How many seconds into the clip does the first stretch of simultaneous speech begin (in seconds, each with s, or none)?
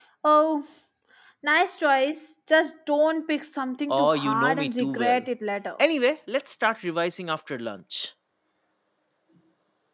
3.9 s